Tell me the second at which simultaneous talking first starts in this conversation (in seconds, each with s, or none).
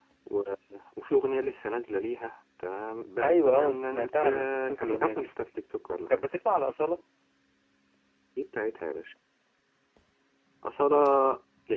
3.2 s